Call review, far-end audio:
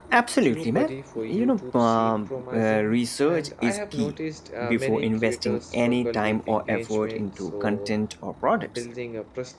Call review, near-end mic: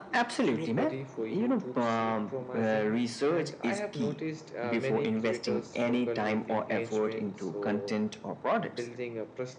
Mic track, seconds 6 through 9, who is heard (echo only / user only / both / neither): echo only